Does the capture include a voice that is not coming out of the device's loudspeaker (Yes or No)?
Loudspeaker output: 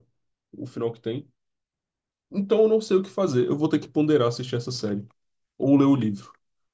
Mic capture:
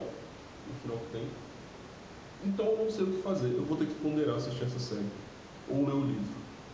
No